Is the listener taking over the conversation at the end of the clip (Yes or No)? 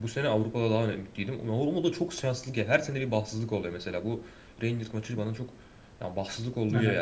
No